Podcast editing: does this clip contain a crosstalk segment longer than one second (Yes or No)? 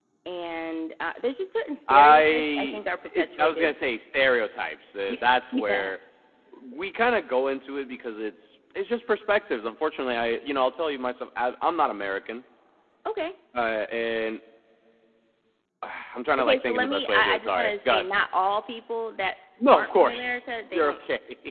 Yes